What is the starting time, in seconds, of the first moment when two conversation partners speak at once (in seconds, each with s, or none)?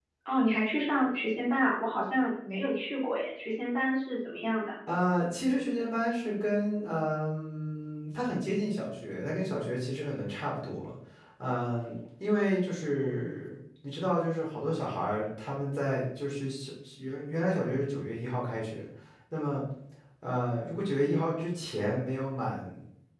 none